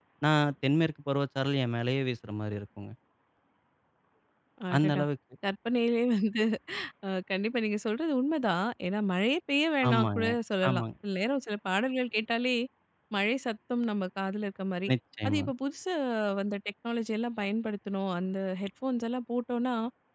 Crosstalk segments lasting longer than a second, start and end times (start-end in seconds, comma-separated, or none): none